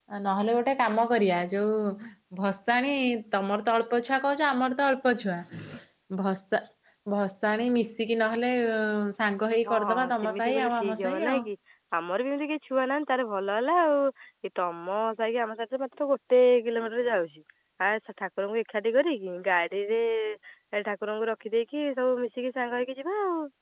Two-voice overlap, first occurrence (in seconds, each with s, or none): 9.7 s